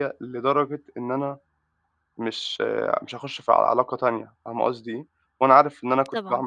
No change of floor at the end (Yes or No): No